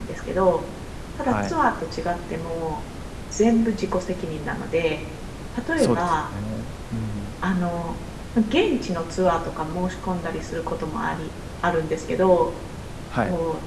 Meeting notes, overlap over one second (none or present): none